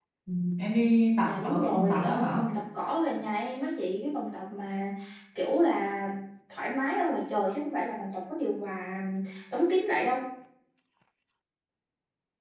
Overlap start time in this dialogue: 1.2 s

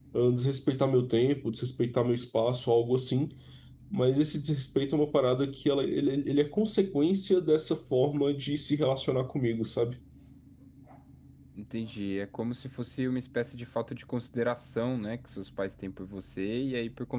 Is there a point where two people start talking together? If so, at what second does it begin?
none

